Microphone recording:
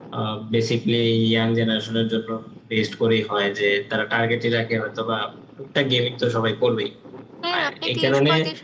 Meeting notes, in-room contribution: present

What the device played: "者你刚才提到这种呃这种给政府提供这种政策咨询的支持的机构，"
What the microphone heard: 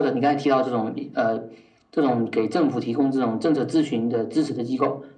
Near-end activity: none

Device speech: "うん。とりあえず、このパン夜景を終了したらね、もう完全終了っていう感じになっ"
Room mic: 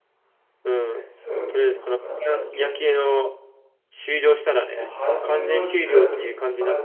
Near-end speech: present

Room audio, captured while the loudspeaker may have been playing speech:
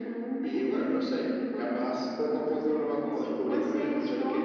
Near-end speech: none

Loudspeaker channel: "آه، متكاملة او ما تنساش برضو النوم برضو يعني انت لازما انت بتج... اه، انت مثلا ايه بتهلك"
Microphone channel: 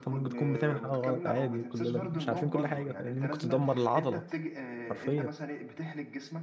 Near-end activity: present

